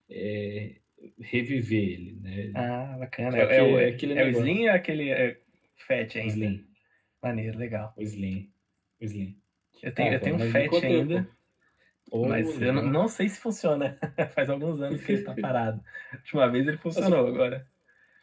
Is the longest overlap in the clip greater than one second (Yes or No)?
Yes